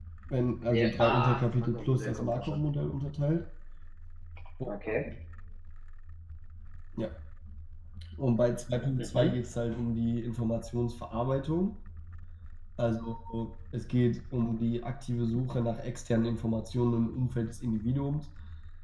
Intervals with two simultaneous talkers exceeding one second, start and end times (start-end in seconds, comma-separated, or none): 0.7-2.6